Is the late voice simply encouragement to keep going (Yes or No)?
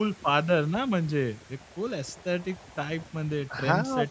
No